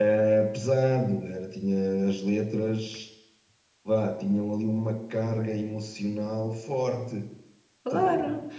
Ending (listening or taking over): taking over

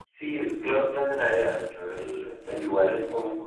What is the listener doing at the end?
listening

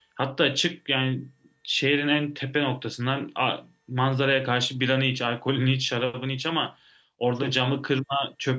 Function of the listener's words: listening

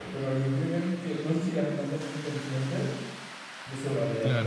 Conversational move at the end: taking over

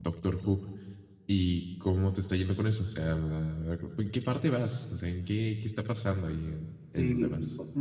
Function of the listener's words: taking over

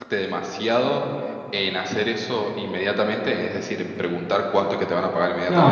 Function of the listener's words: taking over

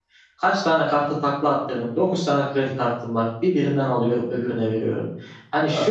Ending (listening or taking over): listening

